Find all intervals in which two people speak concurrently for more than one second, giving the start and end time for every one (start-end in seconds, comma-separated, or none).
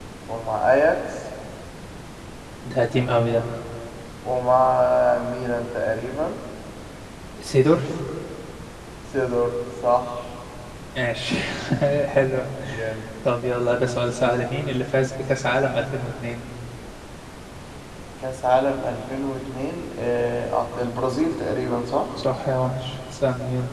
none